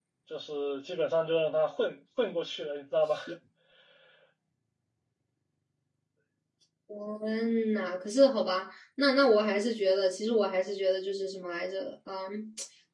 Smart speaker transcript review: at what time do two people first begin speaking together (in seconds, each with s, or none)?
none